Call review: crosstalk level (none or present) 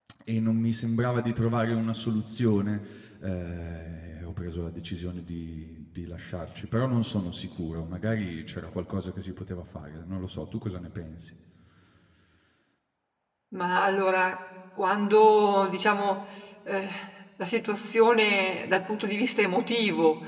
none